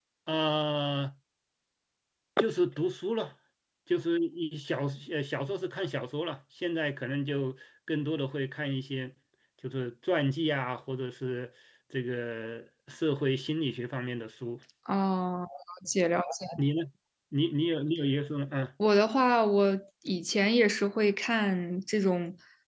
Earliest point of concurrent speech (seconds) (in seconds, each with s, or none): none